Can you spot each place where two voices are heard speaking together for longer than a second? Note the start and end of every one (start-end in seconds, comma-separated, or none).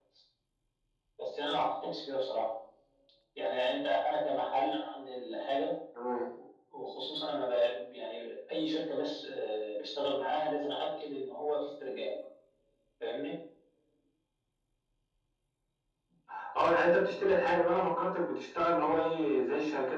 none